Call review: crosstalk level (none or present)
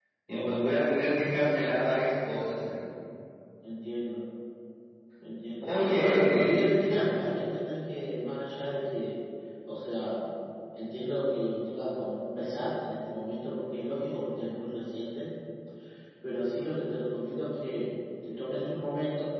present